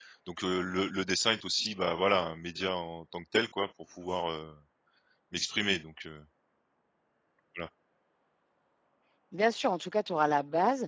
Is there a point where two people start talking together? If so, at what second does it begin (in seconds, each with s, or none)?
none